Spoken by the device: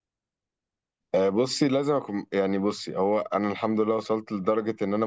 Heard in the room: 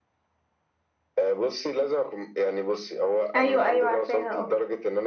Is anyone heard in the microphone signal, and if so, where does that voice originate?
both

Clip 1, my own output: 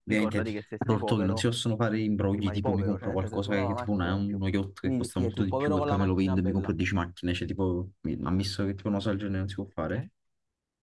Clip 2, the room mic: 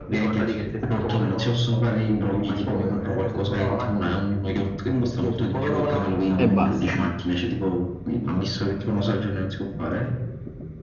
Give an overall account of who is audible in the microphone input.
both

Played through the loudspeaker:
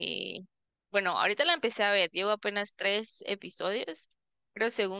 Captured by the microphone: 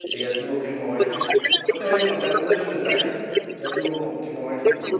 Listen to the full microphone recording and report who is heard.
both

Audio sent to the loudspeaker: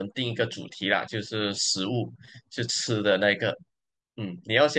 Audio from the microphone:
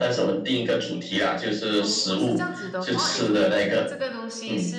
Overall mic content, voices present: both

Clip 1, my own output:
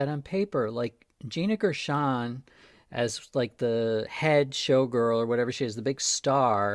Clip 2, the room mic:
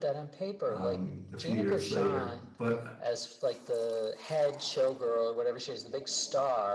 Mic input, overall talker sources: both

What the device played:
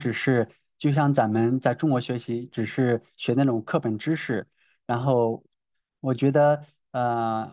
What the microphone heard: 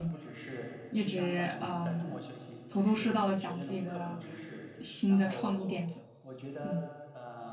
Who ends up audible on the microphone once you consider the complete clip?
both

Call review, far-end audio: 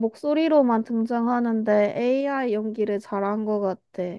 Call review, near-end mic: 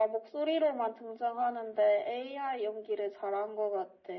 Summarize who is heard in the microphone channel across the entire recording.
echo only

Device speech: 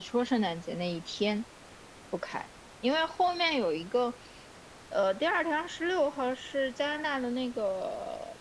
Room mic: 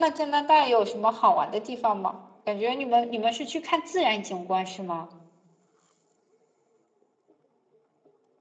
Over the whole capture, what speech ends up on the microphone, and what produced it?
user only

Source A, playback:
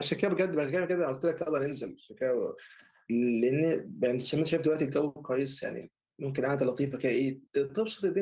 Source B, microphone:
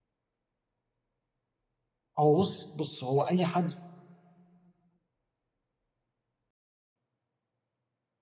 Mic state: user only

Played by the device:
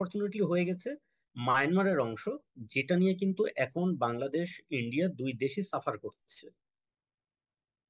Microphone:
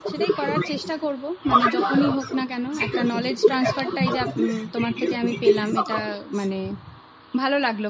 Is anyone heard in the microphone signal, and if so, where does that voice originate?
both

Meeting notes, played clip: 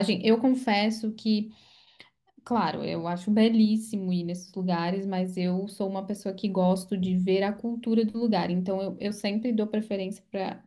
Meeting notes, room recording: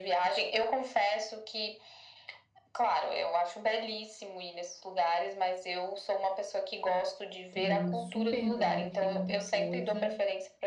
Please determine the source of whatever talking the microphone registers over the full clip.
both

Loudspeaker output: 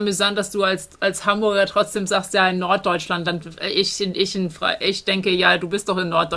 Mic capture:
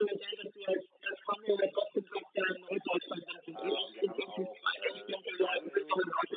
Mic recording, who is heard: both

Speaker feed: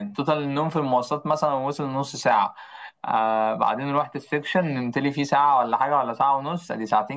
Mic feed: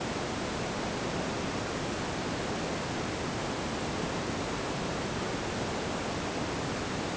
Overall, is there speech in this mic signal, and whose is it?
neither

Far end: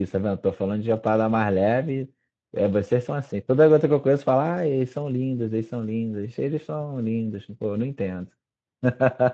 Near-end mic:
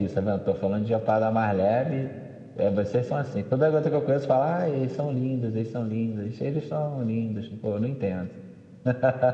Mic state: echo only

